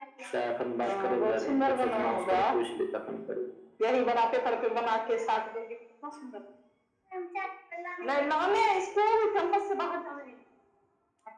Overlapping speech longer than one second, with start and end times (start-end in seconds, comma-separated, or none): 0.8-2.5